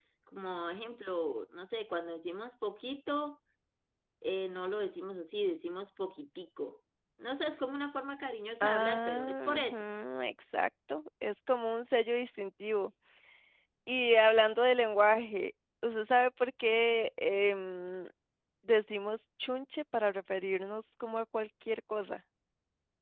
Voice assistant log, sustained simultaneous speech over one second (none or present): present